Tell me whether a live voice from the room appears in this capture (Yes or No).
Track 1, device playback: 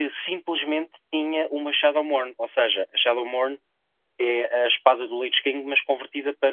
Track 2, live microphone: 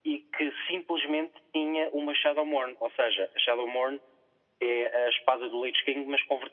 No